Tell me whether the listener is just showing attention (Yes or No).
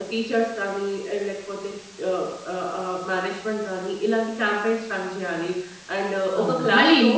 No